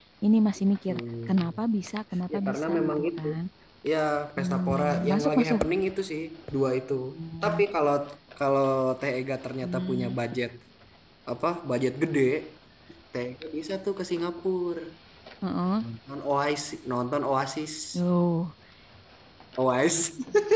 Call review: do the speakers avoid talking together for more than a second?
No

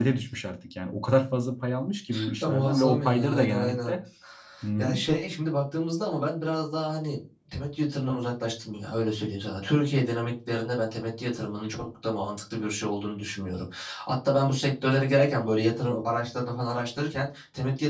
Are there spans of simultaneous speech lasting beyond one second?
Yes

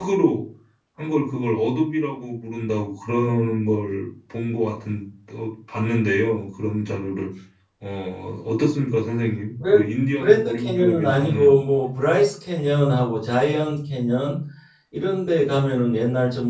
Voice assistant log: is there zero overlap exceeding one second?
No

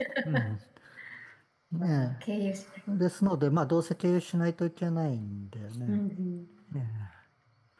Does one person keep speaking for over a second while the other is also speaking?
No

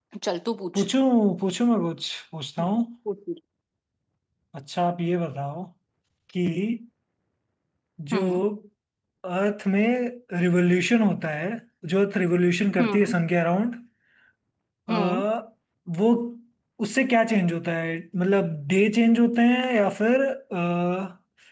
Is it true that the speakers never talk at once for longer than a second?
Yes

